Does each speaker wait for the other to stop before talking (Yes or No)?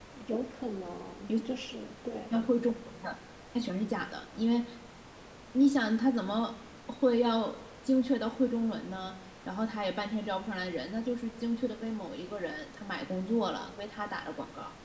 Yes